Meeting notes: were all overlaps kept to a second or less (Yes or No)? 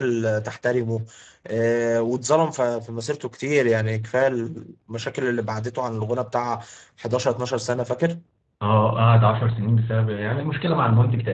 Yes